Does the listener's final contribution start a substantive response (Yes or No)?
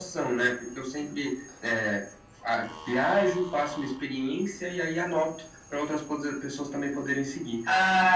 Yes